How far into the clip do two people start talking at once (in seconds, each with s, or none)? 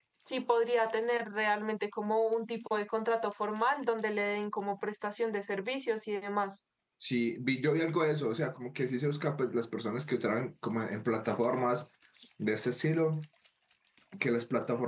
none